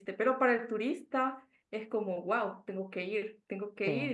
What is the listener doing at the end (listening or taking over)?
listening